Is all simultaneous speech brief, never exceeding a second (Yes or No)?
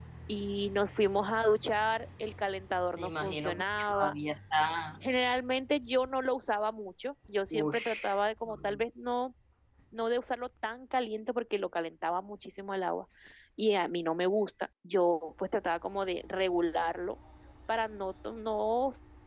No